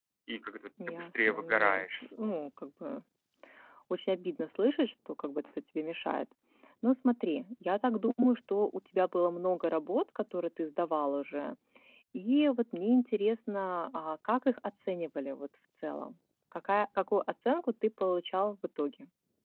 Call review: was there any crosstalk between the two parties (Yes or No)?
Yes